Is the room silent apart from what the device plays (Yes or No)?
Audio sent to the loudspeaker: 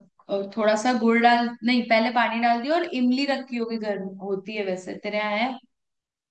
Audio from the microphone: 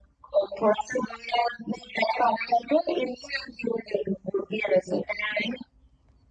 Yes